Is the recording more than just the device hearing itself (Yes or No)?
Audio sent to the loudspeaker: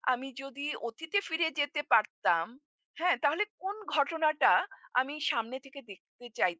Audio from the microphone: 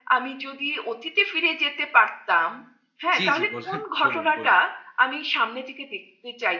Yes